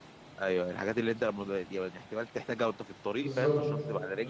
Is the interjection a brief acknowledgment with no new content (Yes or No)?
No